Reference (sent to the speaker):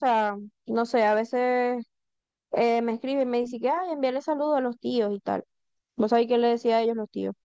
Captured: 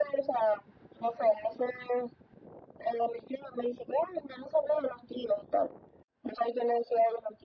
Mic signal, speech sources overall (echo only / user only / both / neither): echo only